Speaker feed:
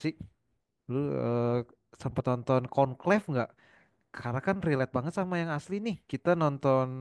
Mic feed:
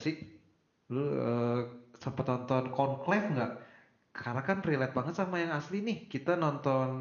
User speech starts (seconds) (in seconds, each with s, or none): none